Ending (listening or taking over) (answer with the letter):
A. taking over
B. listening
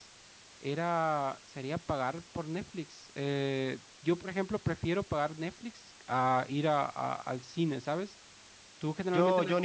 A